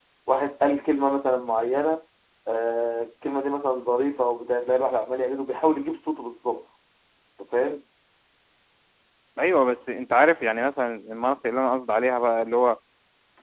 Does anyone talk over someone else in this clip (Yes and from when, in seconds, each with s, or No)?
No